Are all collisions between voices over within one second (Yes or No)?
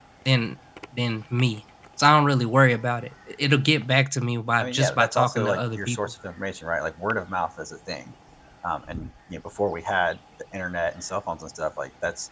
No